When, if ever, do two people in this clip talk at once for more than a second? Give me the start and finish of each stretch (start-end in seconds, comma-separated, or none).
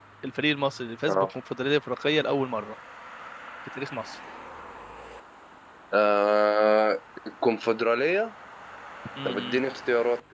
none